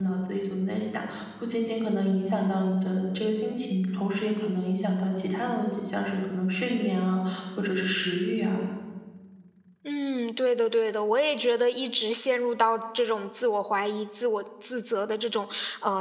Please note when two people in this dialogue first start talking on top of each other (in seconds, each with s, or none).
none